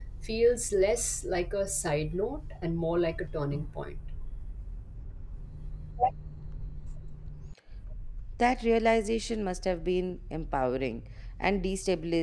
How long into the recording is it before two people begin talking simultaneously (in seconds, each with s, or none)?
none